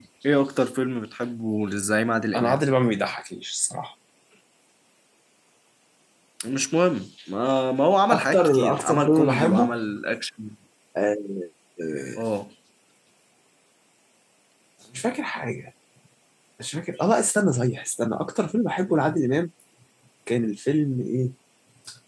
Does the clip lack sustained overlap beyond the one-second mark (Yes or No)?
No